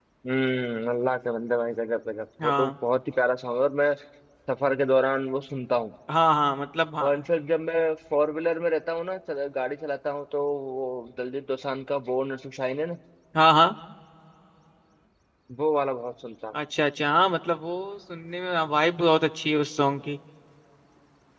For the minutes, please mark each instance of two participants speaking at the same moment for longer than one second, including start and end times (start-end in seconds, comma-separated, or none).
none